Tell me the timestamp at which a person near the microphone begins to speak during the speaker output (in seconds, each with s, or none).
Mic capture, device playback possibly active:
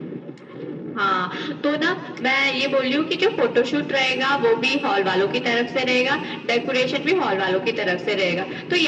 none